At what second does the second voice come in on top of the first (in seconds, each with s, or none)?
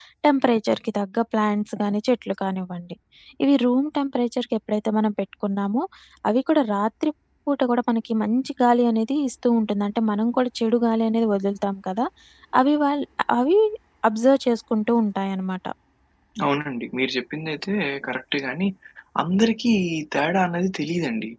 none